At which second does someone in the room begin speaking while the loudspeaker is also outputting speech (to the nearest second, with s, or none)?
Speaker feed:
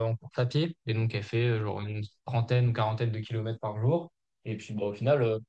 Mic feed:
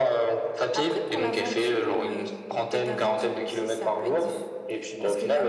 1 s